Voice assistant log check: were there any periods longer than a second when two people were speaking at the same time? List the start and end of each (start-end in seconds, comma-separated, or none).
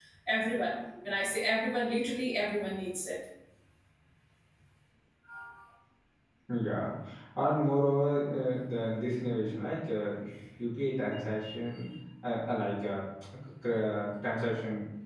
none